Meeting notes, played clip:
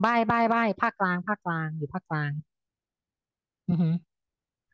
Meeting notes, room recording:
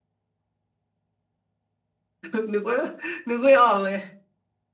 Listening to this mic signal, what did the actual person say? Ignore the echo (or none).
นึกนึกว่านึกไม่ออกเลย